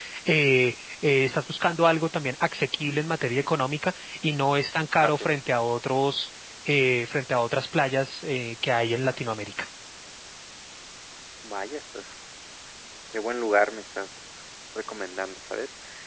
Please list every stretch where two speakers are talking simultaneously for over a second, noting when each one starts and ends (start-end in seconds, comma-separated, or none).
none